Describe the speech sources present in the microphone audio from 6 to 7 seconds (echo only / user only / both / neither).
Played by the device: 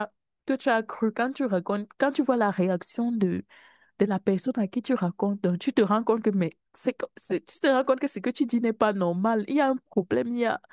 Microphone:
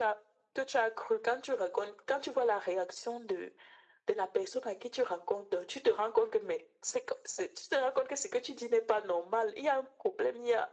echo only